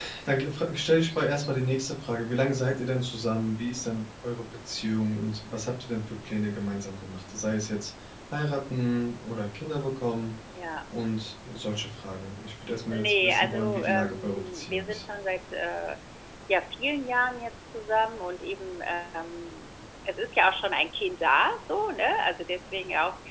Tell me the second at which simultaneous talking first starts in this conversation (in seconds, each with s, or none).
12.9 s